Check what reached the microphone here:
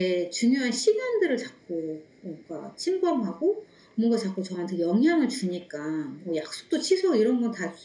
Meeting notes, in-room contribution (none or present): none